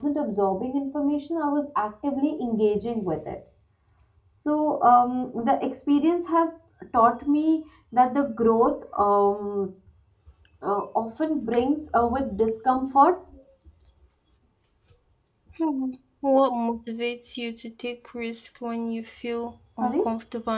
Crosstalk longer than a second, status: none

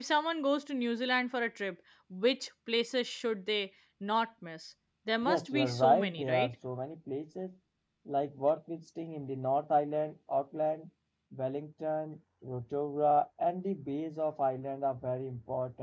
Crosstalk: present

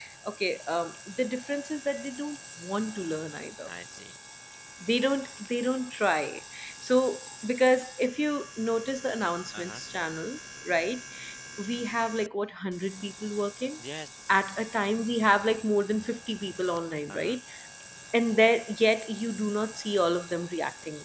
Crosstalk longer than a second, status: none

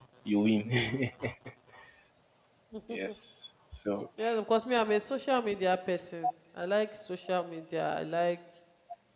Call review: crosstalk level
none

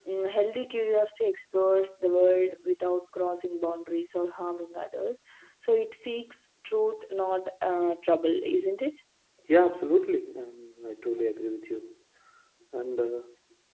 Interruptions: none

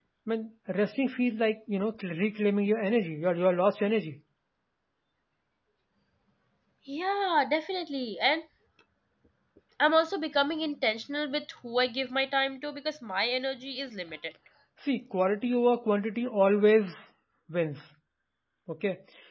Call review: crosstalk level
none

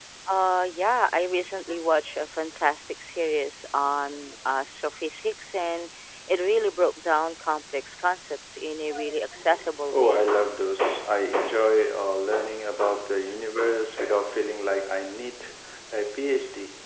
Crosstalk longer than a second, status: none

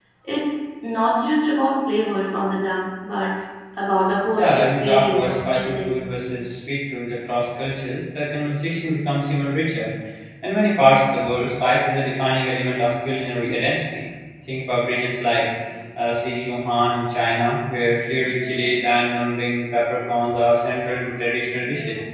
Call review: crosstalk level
present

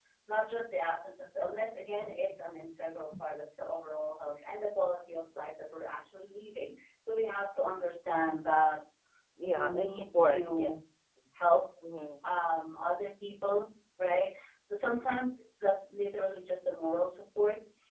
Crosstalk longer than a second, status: present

